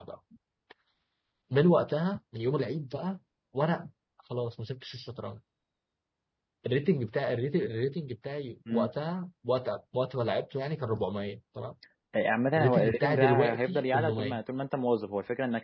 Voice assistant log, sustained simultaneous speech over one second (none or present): present